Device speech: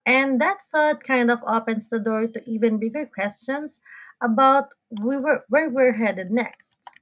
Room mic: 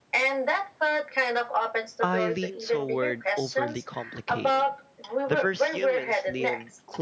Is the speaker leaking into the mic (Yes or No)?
Yes